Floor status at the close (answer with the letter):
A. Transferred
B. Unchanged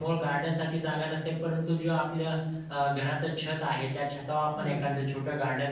B